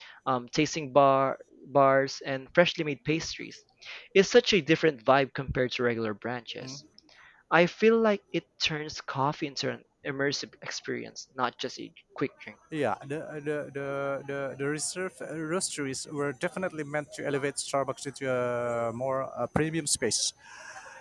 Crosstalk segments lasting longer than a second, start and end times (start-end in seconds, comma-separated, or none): none